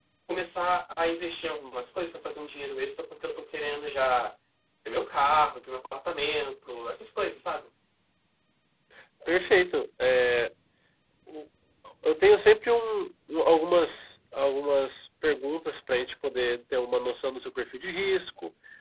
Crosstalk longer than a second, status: none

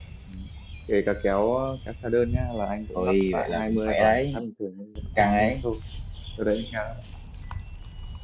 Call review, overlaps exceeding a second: present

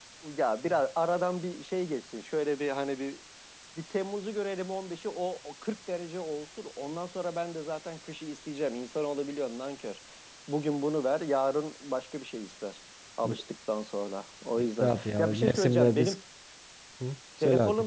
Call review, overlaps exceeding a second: present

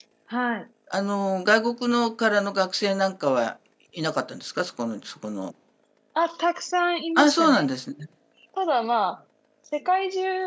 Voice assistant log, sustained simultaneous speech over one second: none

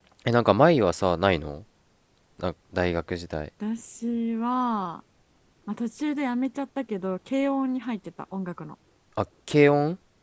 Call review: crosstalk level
none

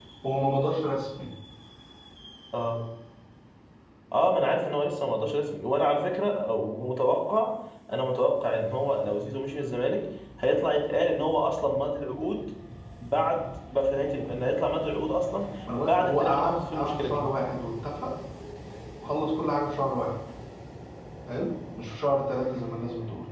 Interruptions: present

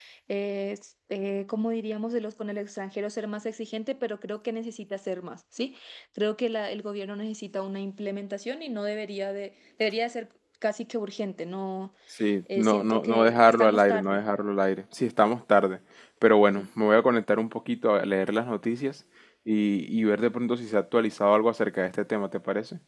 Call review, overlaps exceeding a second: present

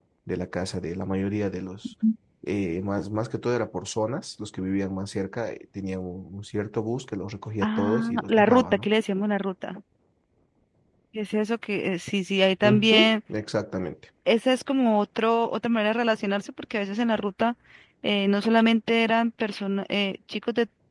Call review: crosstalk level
present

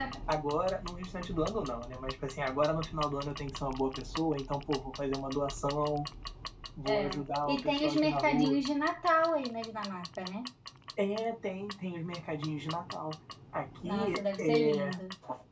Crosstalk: present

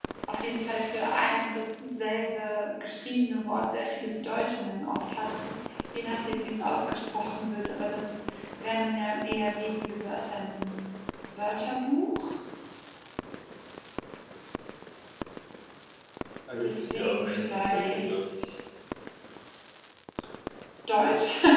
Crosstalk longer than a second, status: present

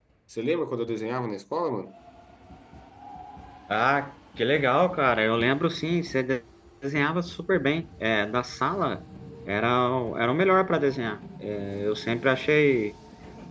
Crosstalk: none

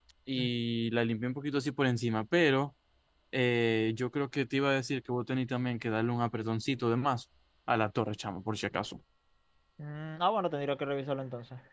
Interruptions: none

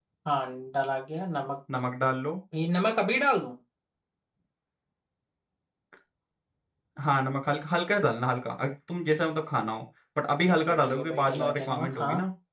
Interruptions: present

